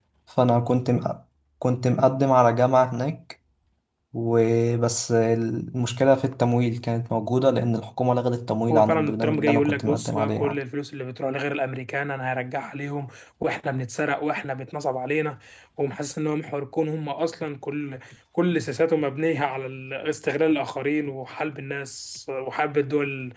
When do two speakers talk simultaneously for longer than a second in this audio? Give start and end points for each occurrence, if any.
8.7-10.6

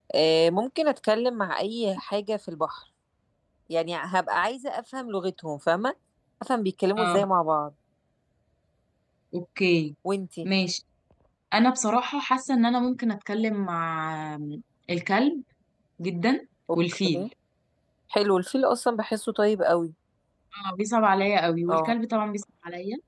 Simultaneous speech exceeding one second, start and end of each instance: none

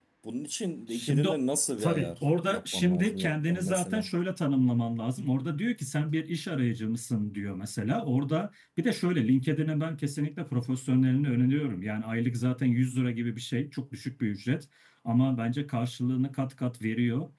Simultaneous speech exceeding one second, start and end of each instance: 1.8-4.0

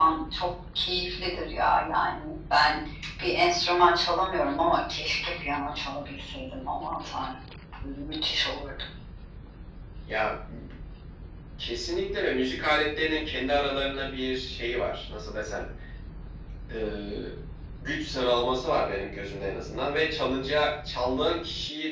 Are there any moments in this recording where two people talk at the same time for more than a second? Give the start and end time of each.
none

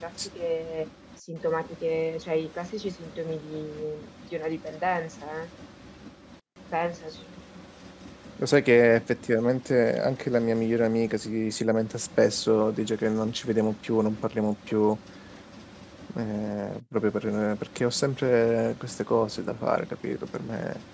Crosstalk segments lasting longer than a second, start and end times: none

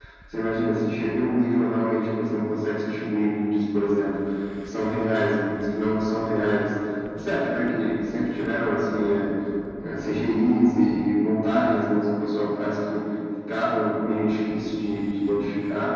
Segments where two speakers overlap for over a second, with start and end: none

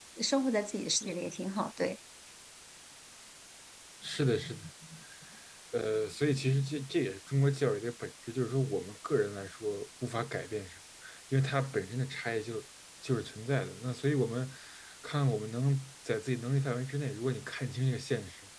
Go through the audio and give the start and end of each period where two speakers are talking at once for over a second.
none

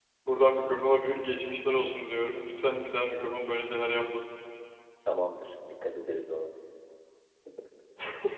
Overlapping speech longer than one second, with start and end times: none

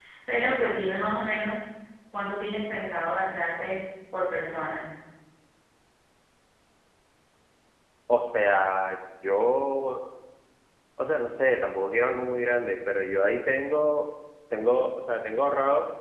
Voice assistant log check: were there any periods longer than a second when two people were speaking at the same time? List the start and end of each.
none

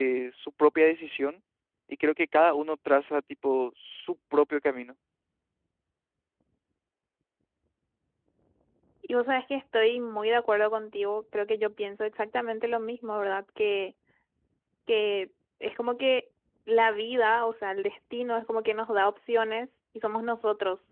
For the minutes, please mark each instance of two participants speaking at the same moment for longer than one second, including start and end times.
none

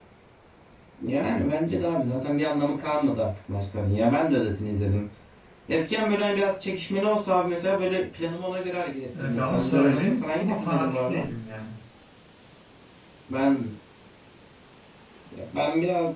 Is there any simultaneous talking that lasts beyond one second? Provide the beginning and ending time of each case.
9.2-11.2

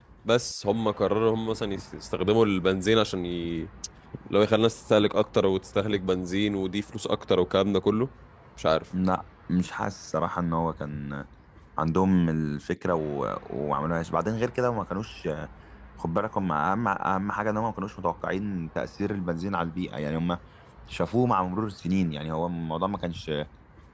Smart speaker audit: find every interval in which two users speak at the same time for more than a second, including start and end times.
none

